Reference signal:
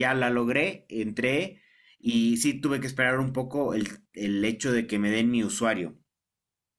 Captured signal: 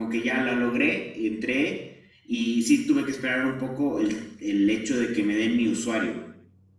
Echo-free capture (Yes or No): No